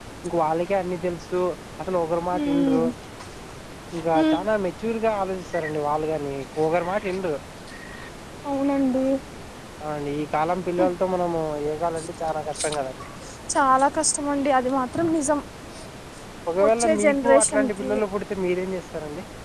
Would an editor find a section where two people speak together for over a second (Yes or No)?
Yes